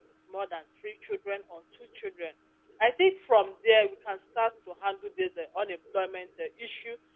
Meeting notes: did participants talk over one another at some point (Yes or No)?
No